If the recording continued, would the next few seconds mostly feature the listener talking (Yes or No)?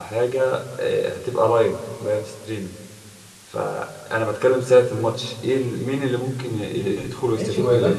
Yes